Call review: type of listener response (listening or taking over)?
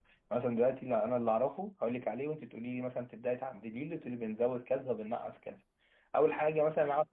listening